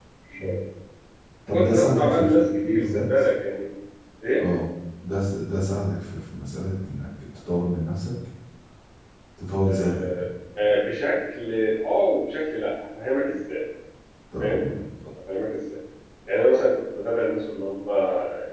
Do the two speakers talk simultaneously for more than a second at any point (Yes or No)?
Yes